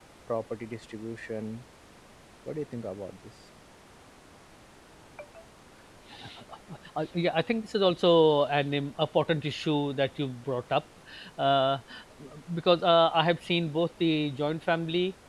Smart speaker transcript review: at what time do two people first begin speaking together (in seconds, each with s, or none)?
none